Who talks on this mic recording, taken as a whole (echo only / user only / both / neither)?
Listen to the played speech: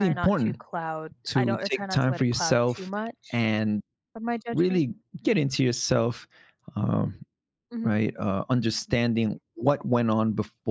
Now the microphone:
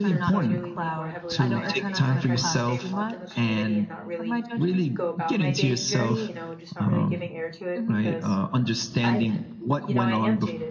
both